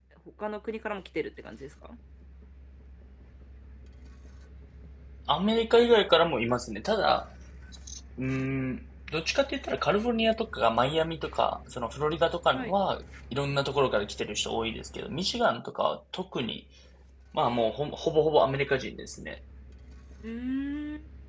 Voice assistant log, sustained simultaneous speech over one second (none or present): none